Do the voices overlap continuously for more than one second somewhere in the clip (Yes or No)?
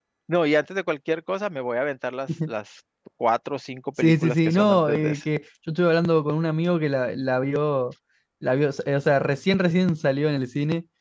Yes